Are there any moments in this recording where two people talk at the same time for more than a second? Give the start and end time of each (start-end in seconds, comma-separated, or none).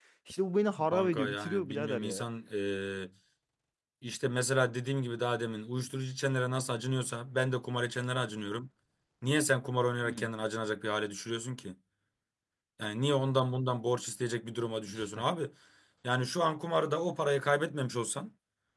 0.9-2.3